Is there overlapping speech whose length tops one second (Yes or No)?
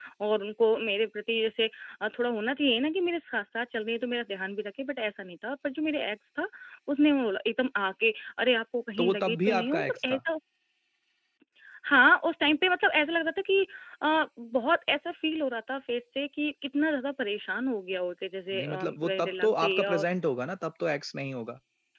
Yes